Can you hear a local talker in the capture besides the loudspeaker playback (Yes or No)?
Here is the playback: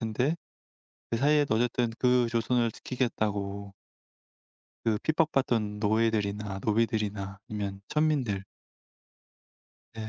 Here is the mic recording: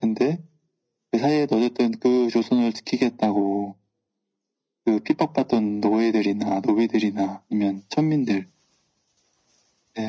No